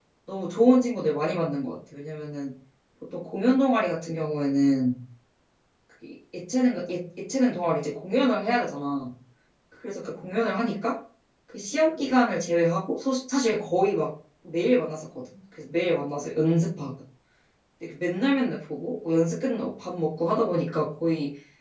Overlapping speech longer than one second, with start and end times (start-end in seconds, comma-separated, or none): none